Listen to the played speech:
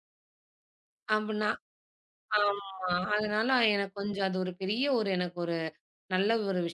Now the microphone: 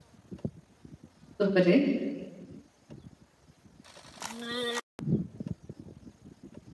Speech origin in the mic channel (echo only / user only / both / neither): user only